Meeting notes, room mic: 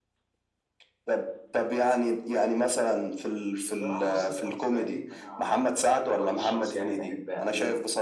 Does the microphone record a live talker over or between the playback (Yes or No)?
Yes